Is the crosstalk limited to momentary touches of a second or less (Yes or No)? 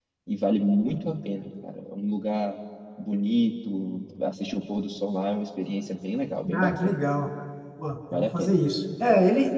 Yes